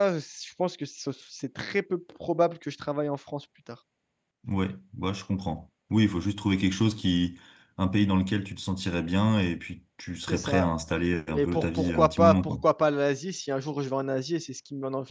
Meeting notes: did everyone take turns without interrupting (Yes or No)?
No